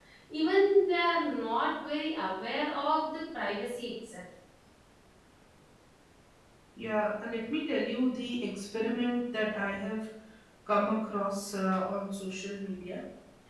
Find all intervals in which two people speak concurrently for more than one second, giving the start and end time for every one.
none

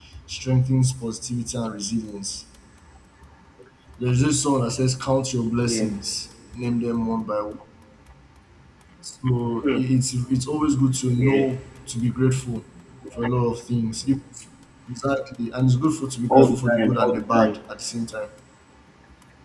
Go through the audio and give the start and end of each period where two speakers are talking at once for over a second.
16.3-17.6

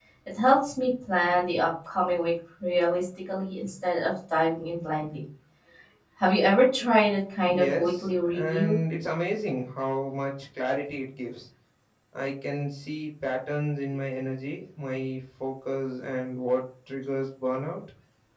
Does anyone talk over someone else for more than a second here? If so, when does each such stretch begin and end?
7.5-8.8

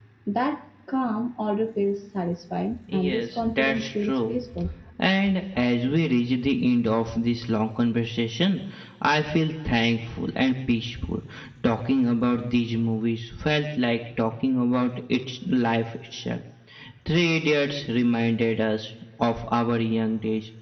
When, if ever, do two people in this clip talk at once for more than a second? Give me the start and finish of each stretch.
3.0-4.3

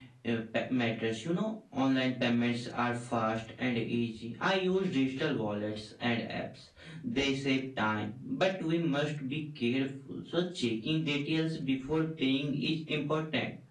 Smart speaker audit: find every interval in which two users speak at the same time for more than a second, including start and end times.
none

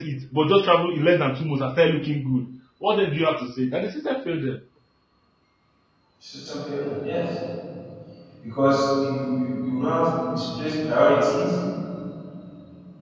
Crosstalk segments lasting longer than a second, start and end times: none

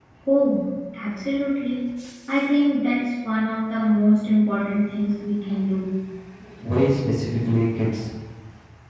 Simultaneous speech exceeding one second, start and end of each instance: none

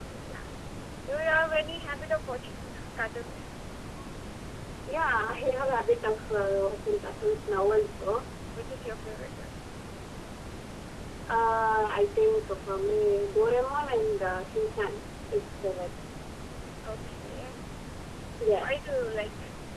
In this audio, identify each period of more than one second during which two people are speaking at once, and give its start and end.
none

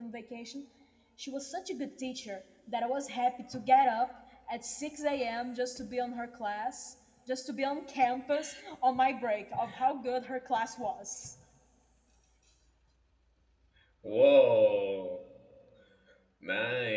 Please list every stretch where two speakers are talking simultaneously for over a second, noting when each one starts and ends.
none

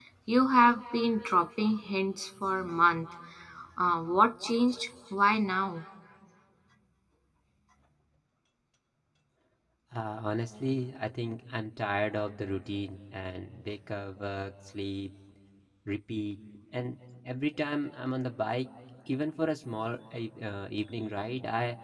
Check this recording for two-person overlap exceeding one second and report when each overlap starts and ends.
none

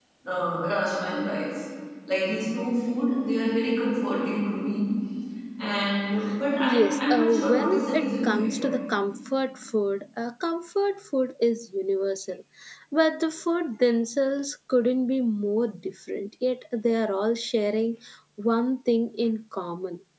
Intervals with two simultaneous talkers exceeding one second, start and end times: 6.6-8.6

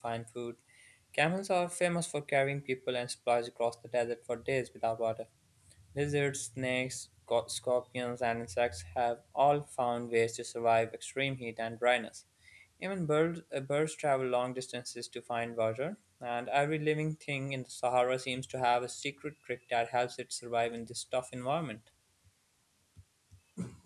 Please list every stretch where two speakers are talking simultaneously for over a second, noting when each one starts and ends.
none

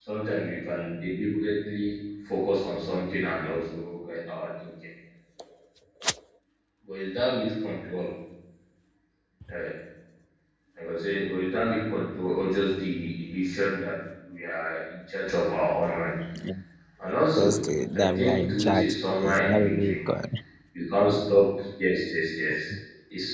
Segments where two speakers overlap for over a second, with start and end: 18.1-20.0

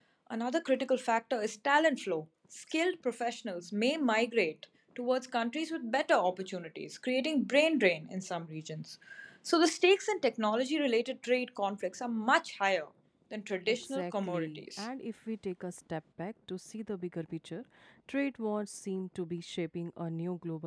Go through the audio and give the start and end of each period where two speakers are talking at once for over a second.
13.7-14.9

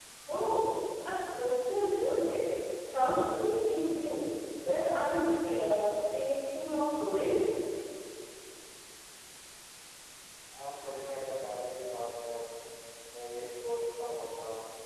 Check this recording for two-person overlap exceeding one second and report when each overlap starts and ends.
none

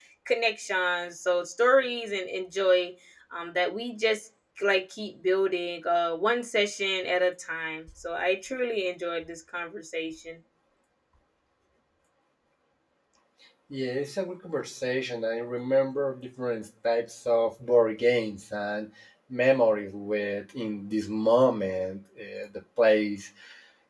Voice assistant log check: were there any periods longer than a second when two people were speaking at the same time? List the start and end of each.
none

